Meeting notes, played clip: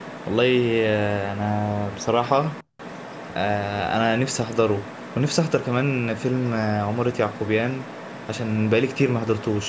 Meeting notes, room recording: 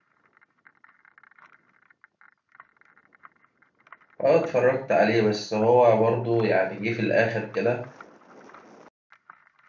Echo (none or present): none